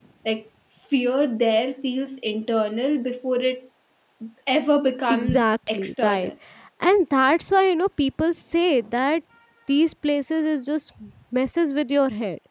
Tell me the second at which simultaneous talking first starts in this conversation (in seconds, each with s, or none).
5.1 s